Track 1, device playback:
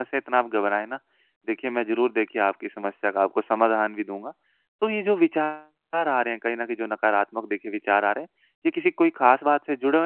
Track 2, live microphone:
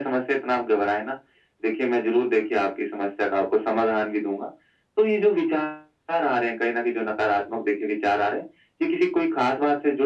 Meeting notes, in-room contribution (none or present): none